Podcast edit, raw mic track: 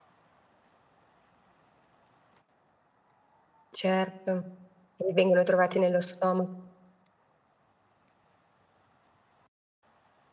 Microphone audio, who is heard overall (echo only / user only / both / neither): user only